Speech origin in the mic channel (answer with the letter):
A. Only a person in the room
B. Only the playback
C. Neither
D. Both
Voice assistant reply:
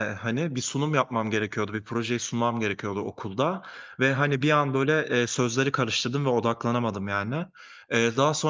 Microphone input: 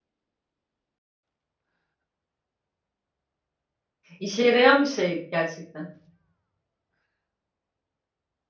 A